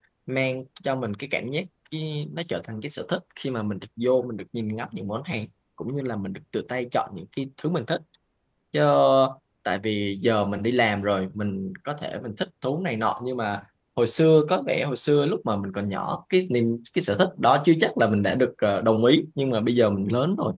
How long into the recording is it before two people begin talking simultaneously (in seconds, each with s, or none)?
none